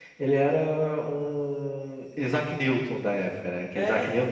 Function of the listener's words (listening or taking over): listening